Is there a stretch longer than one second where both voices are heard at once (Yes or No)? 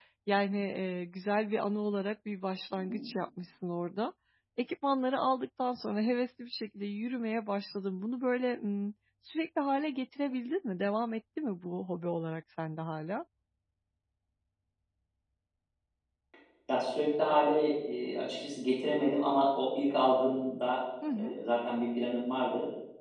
No